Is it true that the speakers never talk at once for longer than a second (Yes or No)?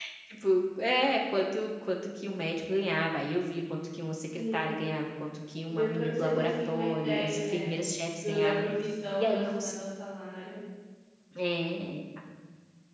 No